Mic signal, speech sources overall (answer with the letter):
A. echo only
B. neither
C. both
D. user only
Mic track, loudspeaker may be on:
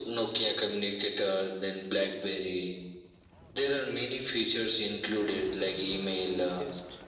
C